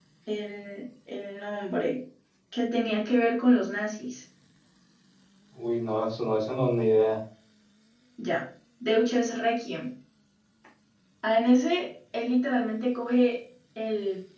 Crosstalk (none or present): none